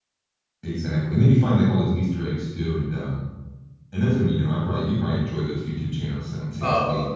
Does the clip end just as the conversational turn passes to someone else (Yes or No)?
Yes